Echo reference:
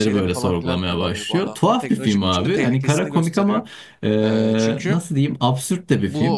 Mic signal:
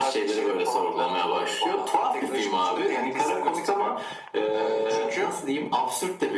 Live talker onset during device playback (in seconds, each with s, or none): none